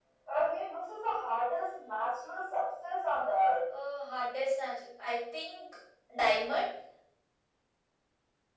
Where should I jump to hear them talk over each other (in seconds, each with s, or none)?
none